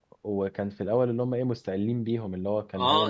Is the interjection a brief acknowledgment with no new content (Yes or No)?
No